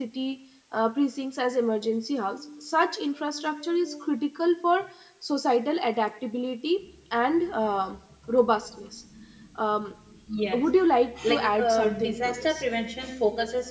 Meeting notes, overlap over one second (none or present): present